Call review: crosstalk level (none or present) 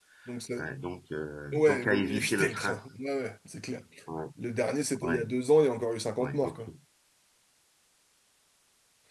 present